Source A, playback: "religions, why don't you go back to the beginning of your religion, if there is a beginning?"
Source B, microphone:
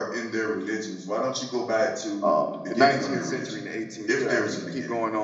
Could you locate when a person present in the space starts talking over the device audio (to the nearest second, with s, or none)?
2 s